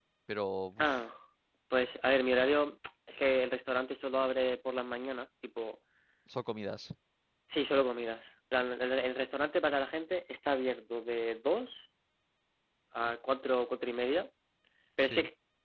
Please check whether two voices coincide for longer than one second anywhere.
No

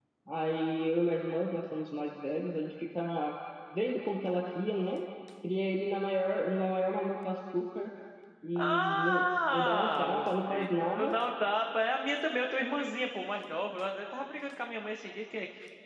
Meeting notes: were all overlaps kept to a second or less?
No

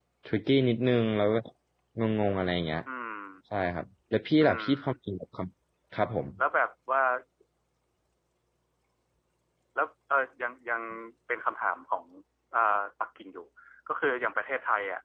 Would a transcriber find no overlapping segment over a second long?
Yes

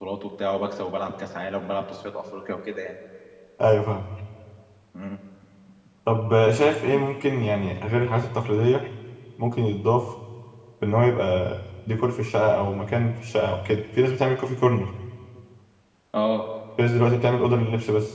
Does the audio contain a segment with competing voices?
No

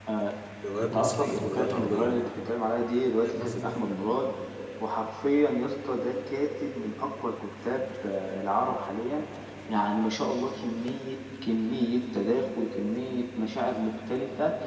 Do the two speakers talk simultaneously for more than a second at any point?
Yes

